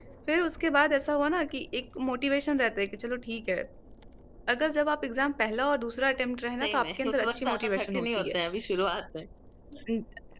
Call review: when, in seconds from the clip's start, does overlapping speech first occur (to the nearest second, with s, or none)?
7 s